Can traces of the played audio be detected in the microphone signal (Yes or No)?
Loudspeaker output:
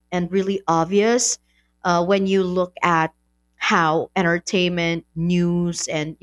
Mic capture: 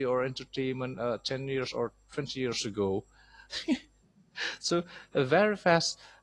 No